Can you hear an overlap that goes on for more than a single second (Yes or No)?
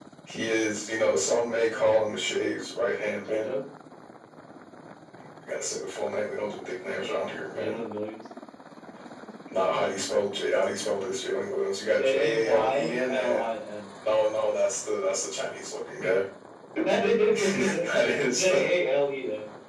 Yes